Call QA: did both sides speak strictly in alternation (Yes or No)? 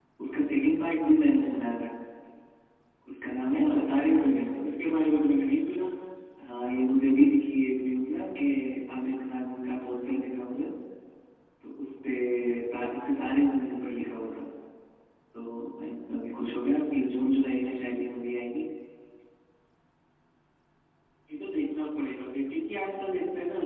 No